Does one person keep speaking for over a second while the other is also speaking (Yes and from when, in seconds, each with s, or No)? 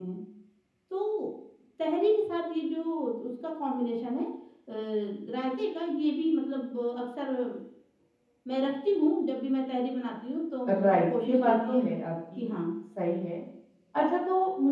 Yes, from 10.7 s